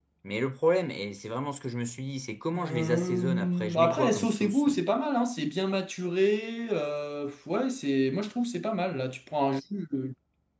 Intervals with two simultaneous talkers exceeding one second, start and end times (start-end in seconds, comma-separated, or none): 2.5-4.6